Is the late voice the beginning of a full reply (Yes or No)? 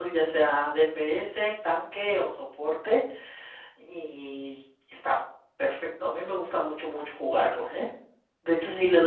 No